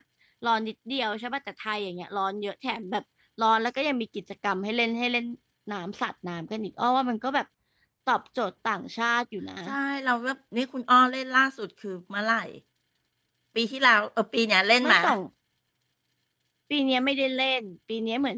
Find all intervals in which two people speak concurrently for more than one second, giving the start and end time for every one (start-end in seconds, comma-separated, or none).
none